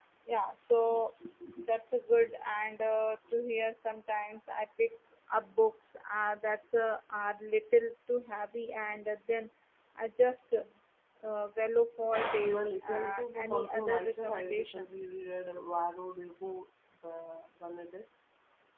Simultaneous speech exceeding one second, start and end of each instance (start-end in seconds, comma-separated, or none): 12.4-14.9